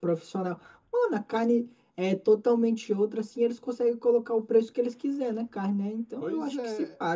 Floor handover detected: Yes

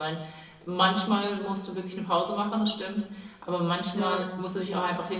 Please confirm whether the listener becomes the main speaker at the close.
No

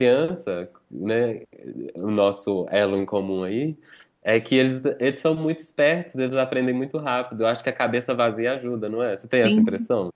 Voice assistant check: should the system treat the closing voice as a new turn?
Yes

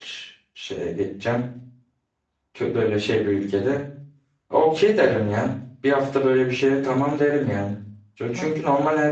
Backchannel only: Yes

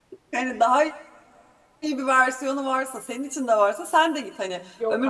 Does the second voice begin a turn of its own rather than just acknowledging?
No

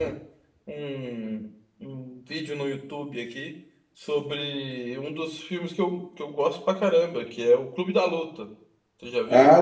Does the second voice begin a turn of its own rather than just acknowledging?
Yes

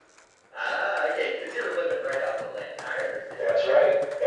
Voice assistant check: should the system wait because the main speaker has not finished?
No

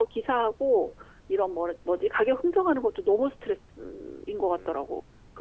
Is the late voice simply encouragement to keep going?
No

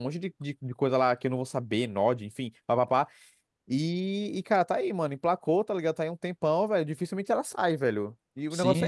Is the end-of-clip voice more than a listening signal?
Yes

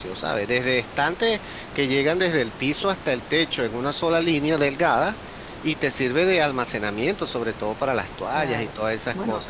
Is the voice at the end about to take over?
Yes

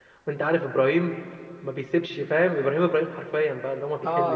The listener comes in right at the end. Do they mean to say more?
Yes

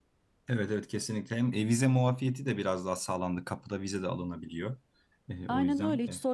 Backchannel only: No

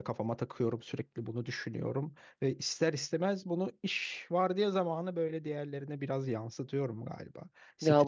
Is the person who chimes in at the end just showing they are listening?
No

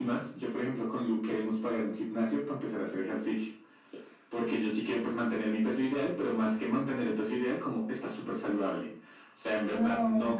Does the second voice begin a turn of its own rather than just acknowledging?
No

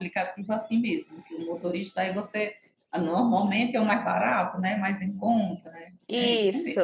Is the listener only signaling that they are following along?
No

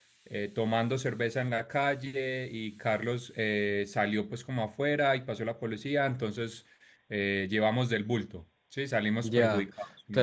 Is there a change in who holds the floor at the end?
Yes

